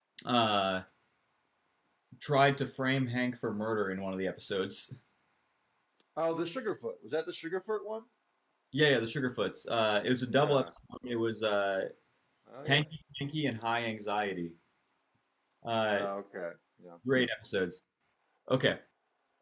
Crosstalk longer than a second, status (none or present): none